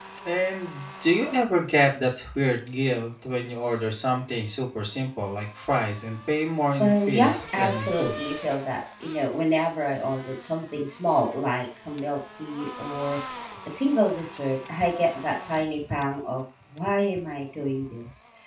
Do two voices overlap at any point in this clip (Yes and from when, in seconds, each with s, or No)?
Yes, from 6.8 s